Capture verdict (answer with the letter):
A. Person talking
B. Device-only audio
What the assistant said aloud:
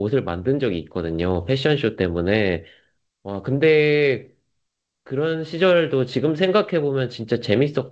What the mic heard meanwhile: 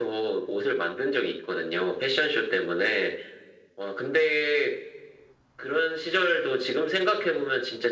B